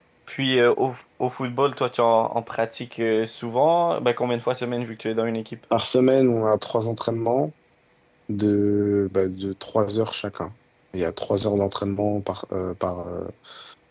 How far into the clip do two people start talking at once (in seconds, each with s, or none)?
none